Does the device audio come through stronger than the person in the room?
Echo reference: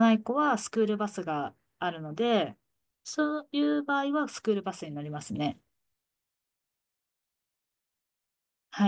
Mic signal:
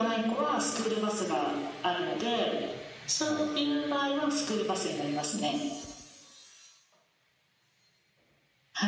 Yes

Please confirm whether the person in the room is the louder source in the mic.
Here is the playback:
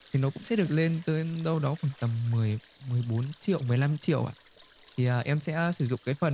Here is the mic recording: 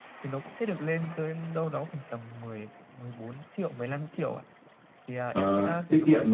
Yes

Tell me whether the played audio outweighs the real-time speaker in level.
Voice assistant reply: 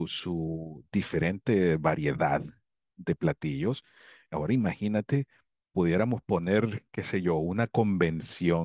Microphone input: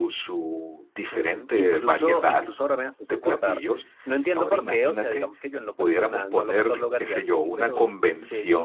Yes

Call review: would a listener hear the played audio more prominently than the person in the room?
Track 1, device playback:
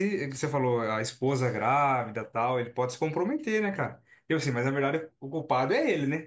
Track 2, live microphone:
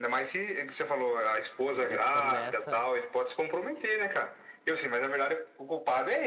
Yes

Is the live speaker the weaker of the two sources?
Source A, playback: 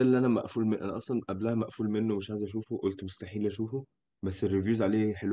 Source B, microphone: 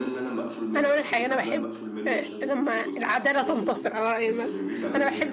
No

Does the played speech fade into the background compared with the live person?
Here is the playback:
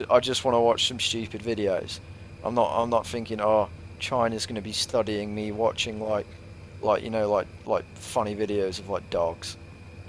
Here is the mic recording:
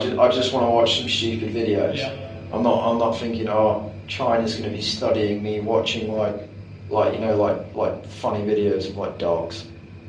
No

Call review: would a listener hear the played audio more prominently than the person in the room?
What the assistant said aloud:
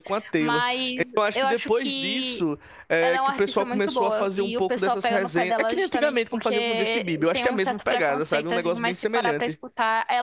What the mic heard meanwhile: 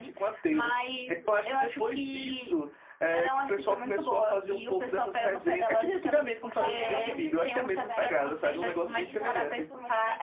Yes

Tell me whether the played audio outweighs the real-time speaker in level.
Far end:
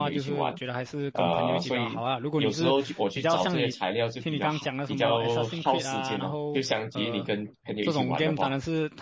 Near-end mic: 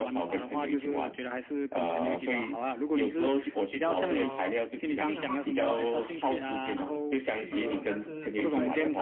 Yes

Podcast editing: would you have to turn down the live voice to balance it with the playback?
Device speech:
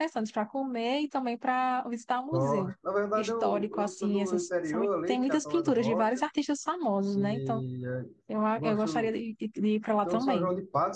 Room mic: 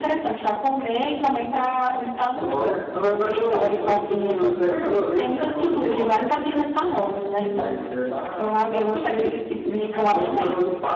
No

